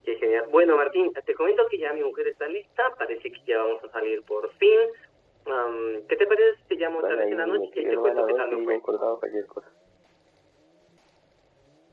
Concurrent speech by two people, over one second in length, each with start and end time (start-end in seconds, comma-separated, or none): 6.9-8.8